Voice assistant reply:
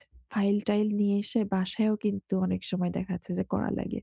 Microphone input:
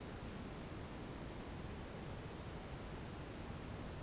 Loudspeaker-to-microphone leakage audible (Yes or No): No